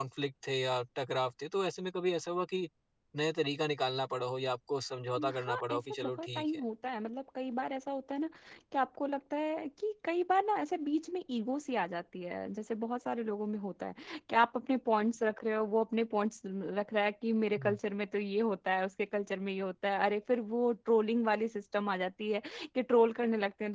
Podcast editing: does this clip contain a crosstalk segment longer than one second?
Yes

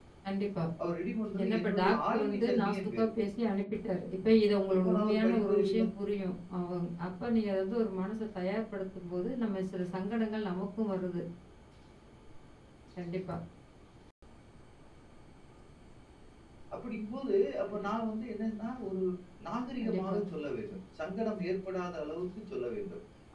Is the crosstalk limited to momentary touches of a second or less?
No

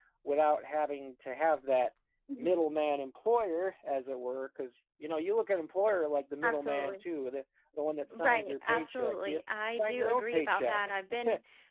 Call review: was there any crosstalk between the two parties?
Yes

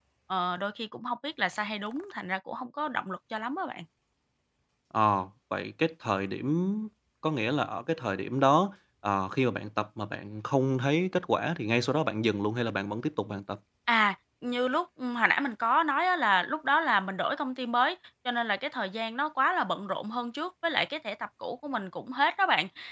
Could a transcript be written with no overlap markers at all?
Yes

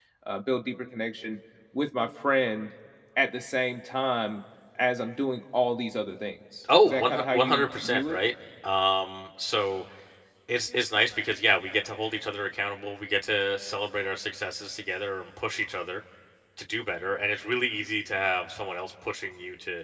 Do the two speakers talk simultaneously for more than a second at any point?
Yes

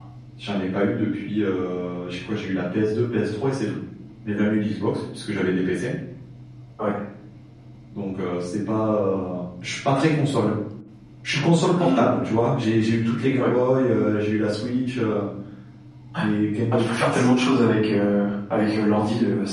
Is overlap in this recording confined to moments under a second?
Yes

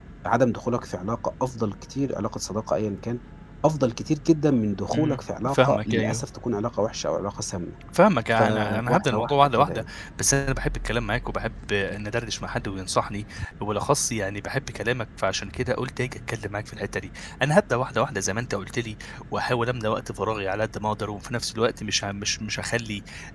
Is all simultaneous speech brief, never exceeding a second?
No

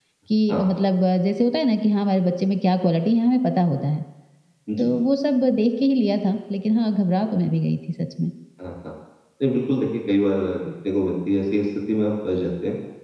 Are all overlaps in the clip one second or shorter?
Yes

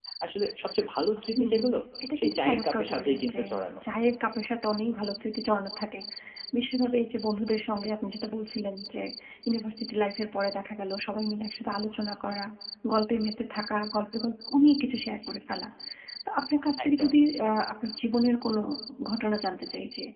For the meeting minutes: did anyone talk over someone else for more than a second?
Yes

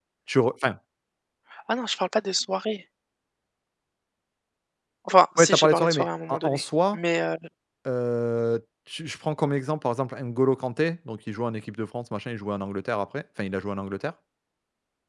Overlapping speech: Yes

